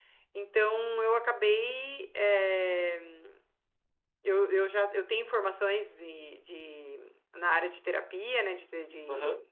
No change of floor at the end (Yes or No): Yes